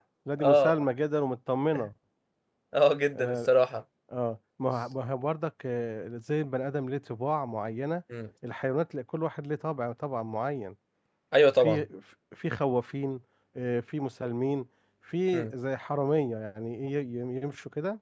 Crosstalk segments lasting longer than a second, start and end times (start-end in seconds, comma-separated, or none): none